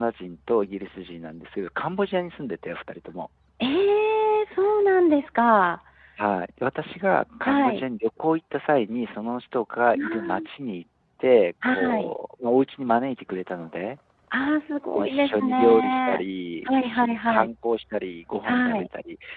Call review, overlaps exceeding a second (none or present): present